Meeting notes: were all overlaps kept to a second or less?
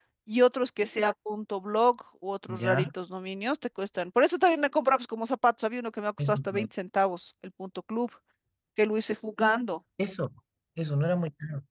Yes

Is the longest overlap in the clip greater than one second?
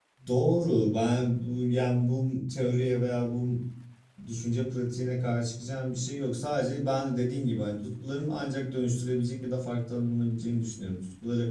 No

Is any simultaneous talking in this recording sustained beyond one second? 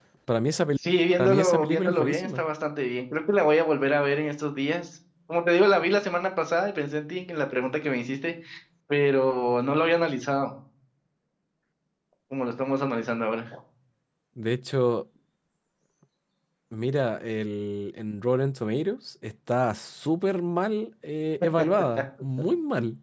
Yes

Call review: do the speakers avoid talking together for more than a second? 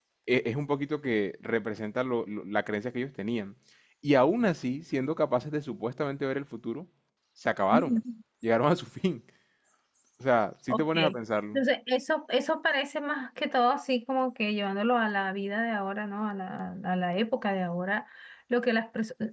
Yes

